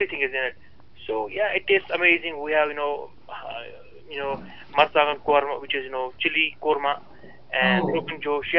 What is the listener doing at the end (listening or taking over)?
listening